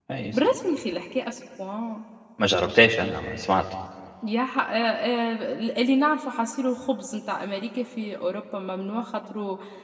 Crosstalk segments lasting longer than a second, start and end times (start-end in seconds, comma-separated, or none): none